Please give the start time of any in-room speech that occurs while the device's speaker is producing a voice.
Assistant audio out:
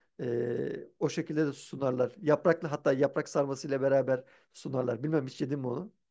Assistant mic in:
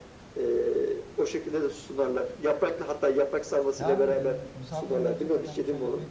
4 s

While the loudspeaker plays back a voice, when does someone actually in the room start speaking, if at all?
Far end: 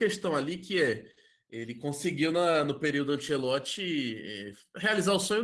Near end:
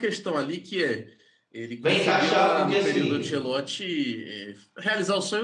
2 s

